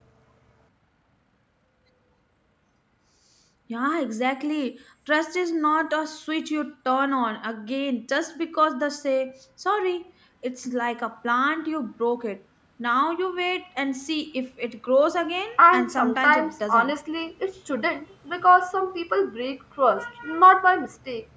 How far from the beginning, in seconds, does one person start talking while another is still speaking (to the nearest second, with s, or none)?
16 s